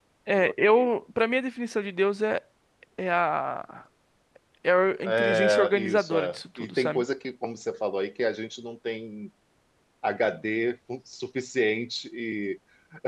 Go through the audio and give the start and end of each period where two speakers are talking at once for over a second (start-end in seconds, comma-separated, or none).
5.1-7.0